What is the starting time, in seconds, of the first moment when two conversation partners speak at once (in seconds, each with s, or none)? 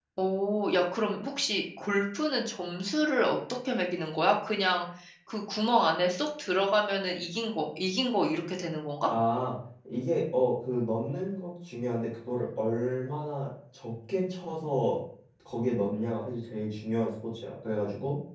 none